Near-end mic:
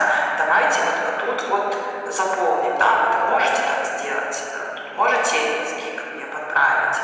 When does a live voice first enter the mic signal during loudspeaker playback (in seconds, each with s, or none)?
none